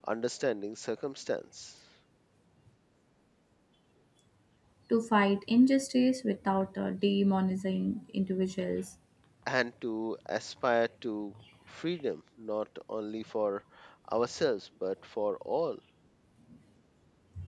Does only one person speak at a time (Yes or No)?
Yes